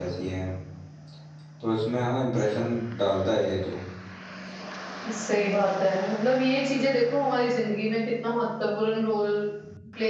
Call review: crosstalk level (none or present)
none